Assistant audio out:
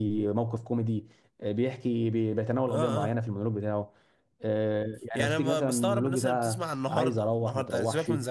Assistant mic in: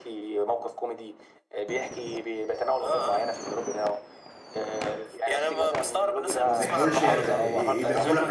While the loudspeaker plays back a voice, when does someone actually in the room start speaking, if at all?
6 s

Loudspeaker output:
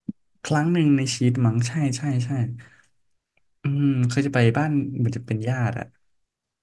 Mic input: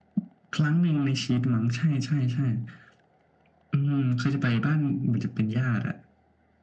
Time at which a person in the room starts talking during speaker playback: none

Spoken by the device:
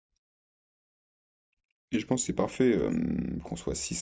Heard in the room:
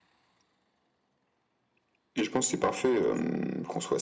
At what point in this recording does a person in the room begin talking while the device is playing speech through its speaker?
none

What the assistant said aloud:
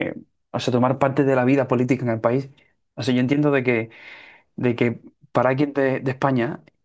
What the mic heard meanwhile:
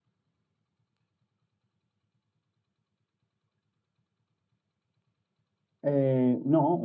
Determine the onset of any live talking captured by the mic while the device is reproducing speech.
6 s

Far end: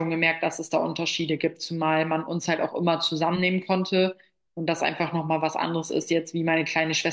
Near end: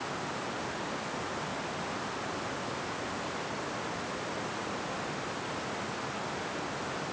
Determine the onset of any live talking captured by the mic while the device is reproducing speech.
none

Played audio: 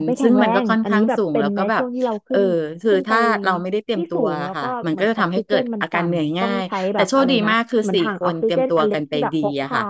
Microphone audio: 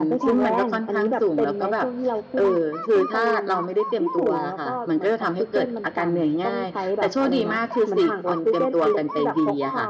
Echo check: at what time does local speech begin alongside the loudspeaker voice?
none

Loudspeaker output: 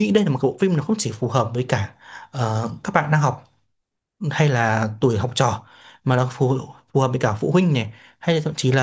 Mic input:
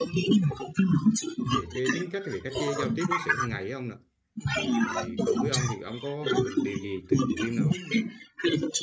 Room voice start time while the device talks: 2 s

